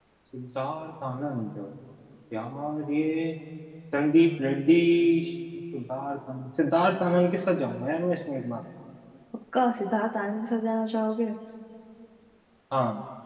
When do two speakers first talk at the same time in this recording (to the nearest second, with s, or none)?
none